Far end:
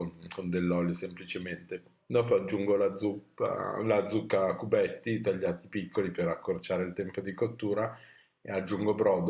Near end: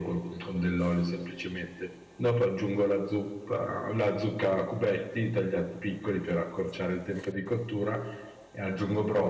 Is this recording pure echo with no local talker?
Yes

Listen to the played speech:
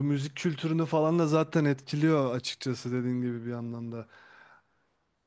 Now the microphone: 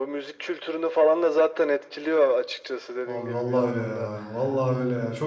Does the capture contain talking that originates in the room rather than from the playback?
Yes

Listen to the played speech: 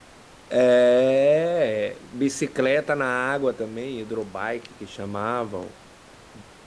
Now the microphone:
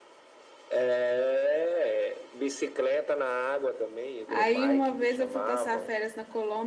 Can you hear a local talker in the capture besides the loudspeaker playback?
Yes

